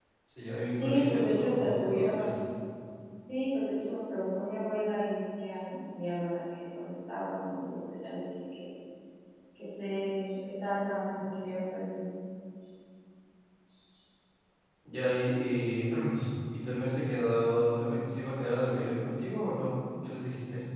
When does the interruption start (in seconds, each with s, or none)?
0.8 s